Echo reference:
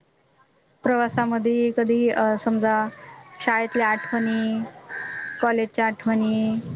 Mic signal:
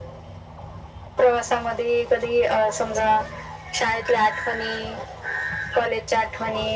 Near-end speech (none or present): none